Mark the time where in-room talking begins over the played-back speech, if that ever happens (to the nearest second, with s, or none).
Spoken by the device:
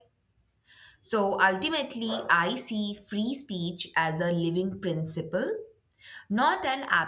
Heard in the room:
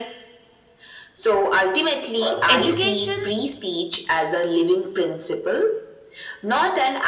2 s